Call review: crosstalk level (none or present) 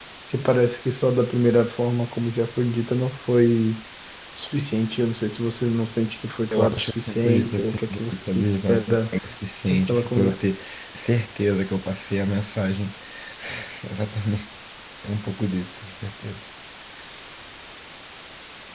present